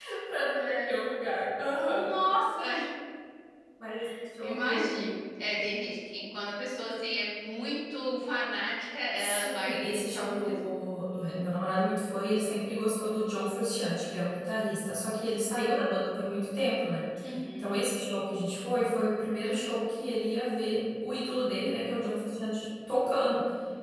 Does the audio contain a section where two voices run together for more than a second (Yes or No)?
Yes